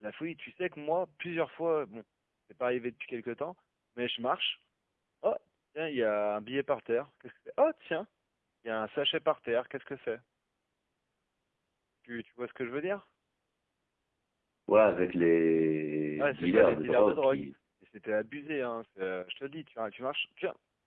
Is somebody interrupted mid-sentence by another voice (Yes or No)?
Yes